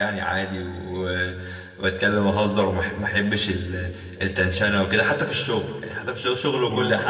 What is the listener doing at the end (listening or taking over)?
listening